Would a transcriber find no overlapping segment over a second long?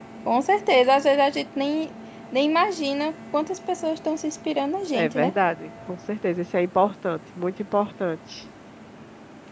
Yes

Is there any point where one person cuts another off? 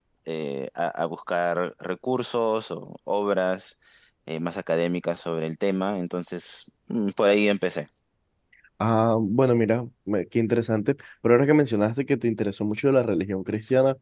No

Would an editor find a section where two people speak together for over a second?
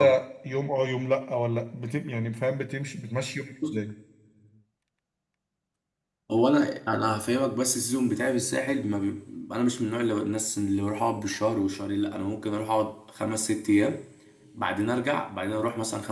No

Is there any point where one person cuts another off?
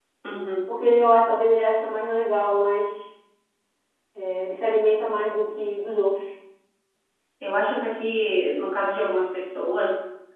No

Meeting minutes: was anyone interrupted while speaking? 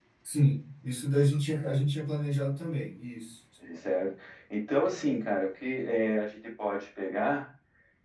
No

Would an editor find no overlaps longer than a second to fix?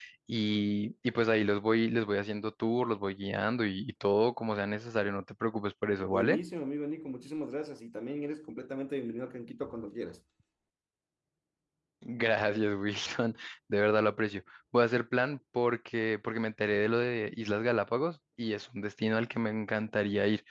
Yes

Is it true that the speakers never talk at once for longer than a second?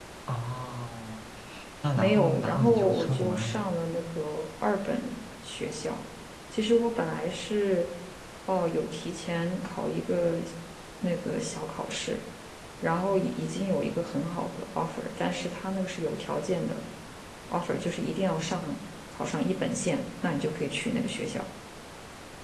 No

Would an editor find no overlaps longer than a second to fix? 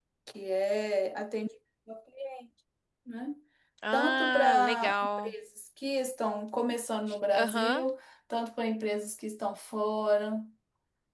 No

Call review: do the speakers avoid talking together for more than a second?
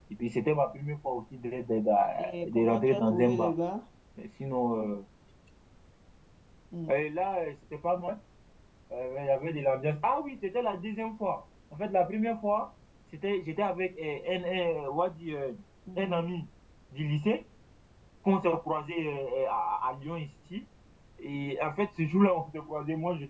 No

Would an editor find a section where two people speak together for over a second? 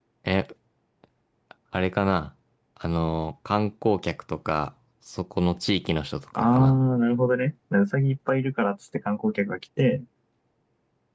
No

